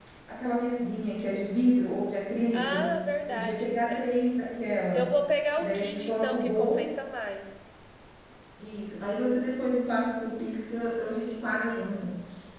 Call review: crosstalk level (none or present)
present